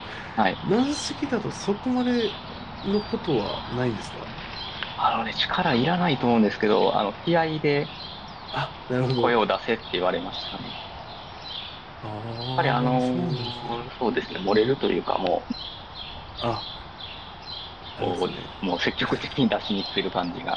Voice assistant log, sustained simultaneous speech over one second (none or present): present